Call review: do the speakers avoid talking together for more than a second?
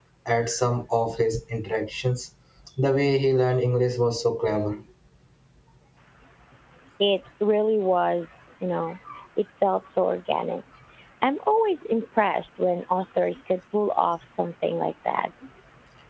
Yes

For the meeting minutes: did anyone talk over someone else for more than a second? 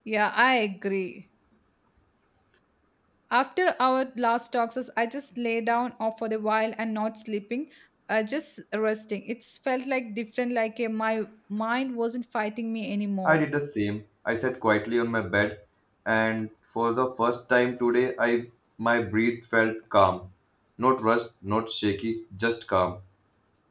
No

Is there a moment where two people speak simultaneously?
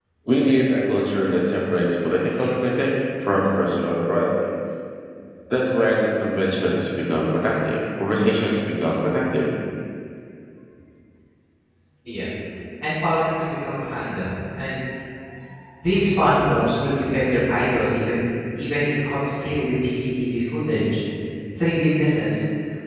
No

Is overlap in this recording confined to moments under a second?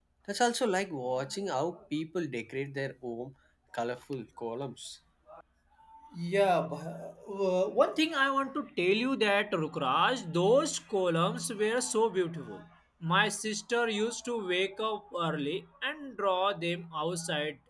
Yes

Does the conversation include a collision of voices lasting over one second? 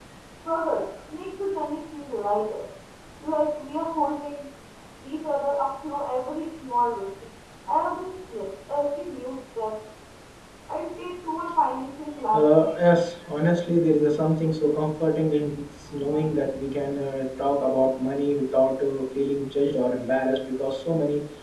No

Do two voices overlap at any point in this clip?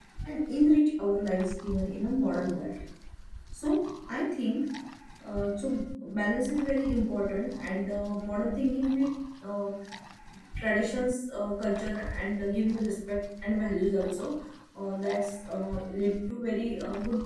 No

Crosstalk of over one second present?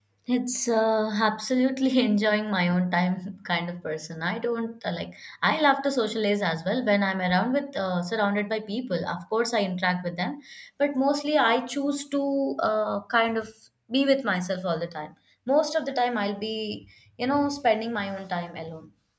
No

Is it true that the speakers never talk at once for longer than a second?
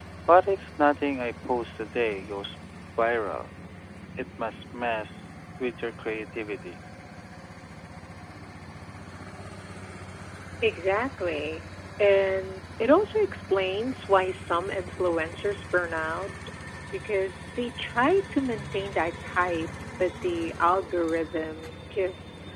Yes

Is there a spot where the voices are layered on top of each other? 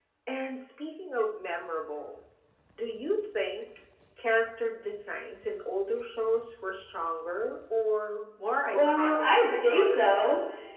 Yes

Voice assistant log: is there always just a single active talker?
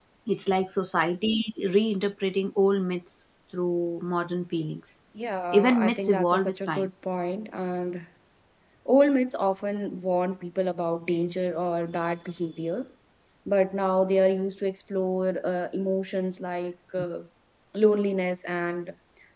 No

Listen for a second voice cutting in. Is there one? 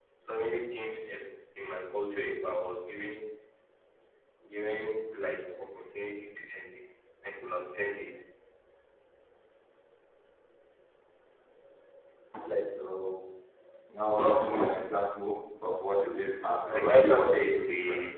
Yes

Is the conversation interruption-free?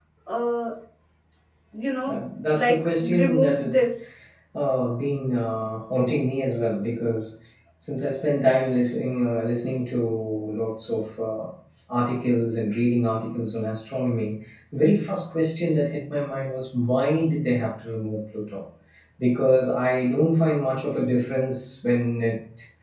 No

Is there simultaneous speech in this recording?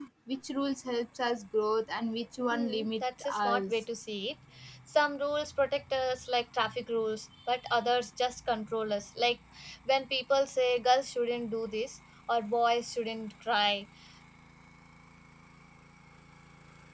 Yes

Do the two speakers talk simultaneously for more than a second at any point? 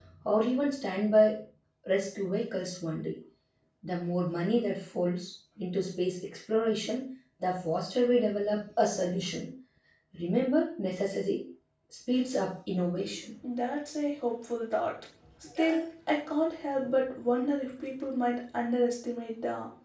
No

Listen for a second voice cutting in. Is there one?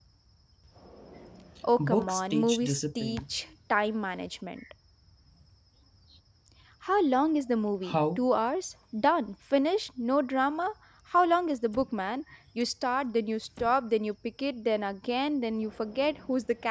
Yes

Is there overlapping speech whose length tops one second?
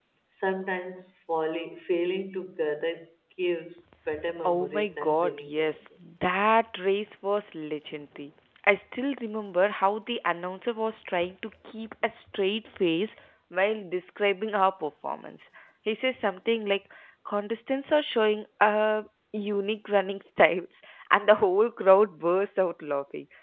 Yes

